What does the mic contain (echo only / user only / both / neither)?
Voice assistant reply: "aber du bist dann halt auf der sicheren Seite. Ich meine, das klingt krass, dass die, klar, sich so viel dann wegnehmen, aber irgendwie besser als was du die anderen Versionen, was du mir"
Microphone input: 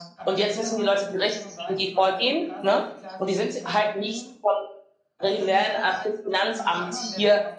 both